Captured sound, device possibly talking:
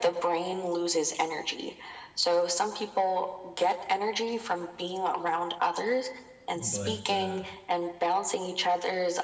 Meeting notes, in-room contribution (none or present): present